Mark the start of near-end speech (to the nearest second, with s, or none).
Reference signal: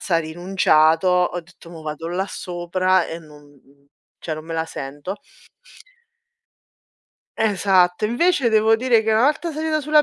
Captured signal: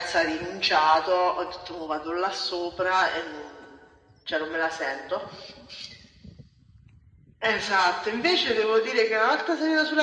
none